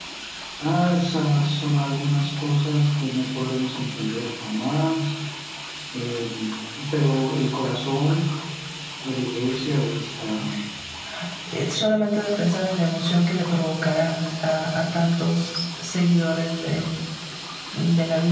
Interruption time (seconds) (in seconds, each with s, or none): none